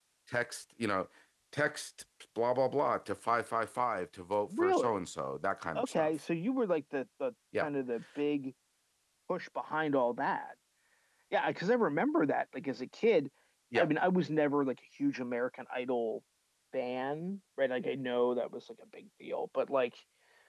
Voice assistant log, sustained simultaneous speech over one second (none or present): none